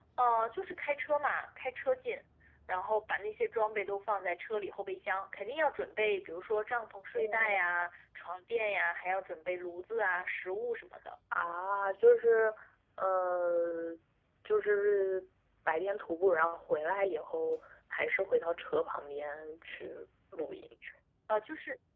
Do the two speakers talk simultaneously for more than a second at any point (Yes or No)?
No